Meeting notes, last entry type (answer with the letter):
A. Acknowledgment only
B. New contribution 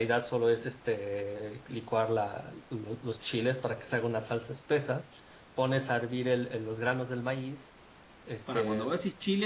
B